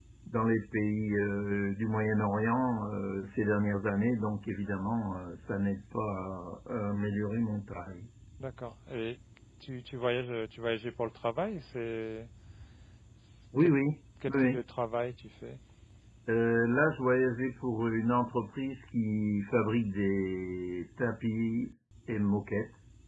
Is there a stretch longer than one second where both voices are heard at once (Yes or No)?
No